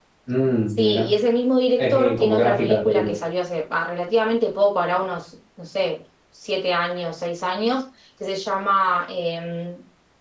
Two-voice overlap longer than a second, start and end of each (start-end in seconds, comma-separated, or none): 1.8-3.2